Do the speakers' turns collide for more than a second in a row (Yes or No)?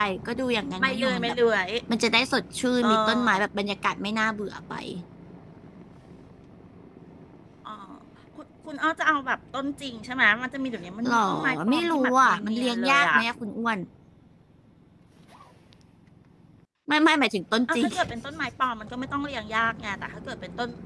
Yes